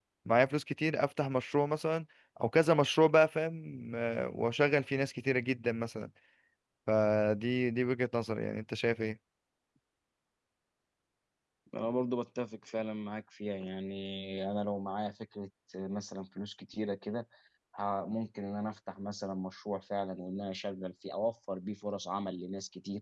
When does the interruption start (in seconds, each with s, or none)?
none